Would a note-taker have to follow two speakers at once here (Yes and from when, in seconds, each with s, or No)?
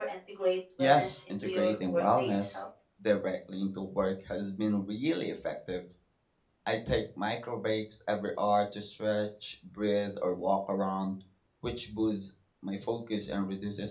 Yes, from 0.8 s